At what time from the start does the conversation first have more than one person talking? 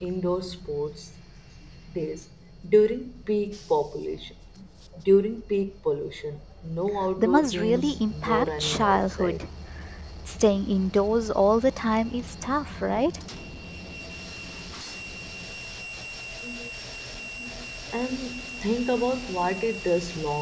7.2 s

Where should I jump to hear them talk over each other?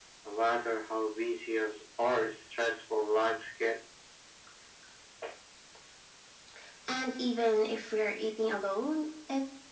none

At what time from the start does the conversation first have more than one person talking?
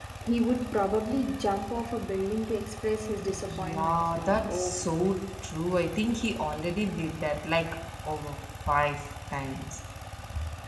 3.3 s

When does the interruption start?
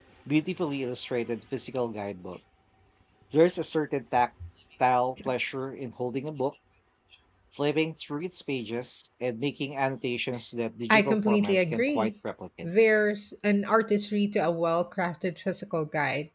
10.9 s

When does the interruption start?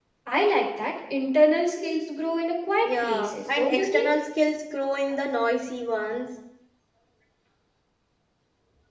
2.8 s

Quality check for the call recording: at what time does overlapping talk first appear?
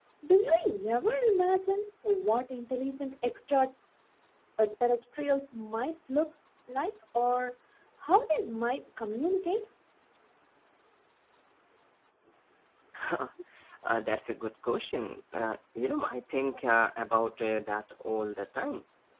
none

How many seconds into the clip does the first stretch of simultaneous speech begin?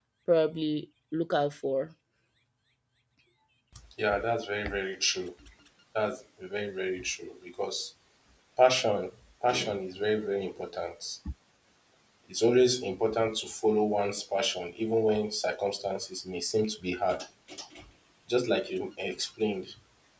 none

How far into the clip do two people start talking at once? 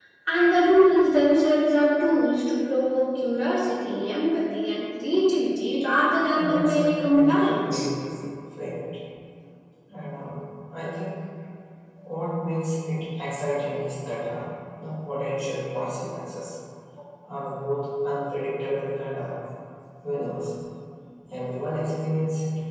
6.3 s

